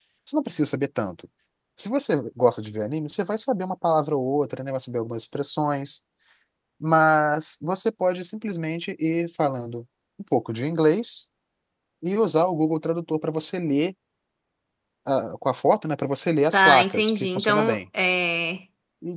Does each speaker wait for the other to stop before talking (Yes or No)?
No